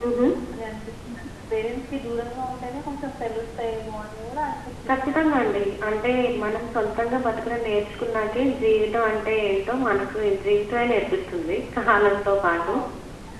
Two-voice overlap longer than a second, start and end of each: none

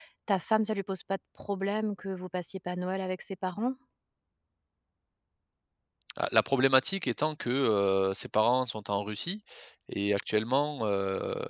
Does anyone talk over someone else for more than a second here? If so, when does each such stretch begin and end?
none

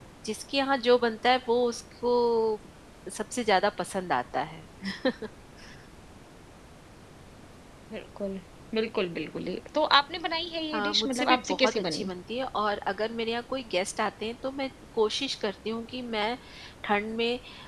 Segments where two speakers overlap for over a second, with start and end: 10.7-12.1

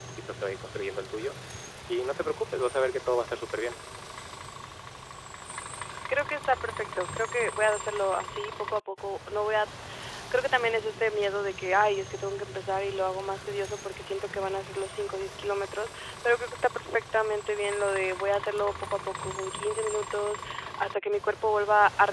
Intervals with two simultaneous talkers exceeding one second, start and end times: none

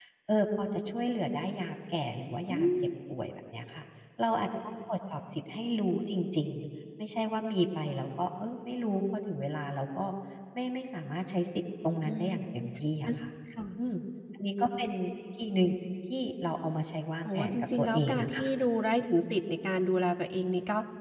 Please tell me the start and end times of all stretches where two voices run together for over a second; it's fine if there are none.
17.2-18.4

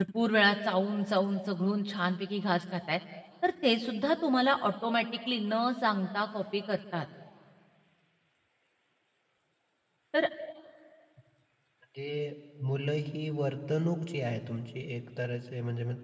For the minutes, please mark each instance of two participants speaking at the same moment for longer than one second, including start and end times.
none

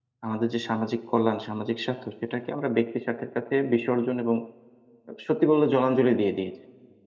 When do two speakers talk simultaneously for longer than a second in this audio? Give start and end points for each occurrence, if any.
none

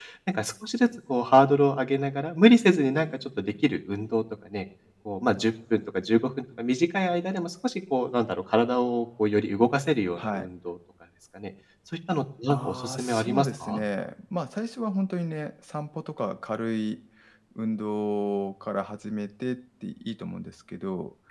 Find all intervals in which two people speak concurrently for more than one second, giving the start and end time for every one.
12.5-13.8

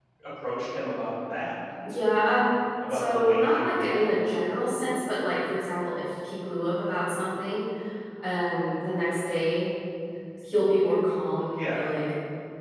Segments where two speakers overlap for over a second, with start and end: 2.9-4.1

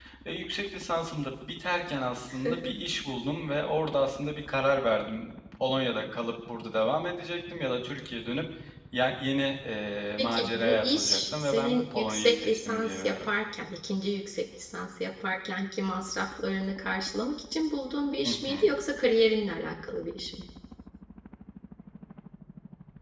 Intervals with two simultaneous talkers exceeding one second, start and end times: 10.2-13.3

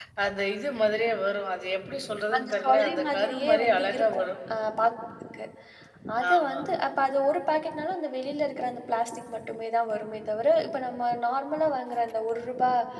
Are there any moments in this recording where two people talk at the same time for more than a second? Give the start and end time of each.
2.4-4.2

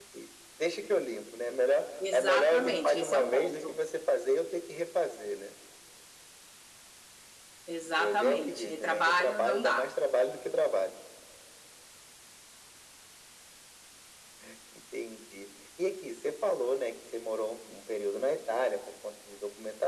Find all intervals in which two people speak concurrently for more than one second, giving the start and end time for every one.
2.1-3.7, 8.0-9.9

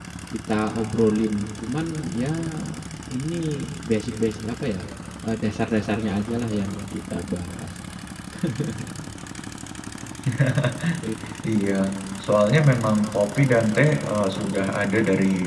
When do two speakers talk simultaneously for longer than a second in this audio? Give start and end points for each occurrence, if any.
none

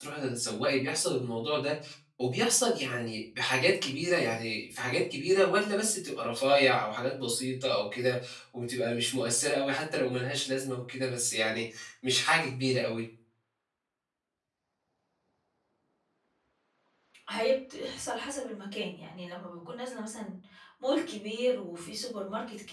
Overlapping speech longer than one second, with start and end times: none

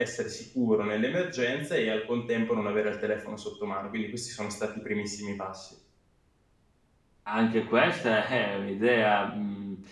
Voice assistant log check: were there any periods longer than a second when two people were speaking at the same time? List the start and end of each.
none

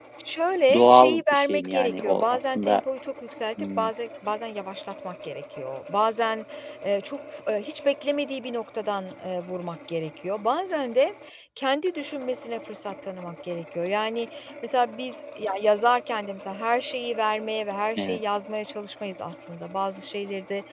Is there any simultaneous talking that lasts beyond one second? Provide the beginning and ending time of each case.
0.7-2.8

